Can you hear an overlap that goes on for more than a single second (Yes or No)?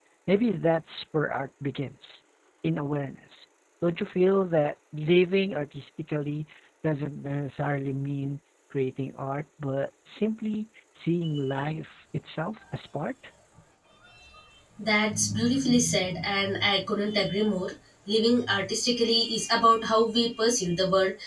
No